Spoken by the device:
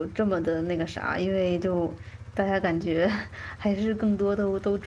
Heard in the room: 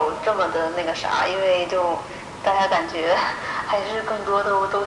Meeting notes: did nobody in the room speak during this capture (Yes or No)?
Yes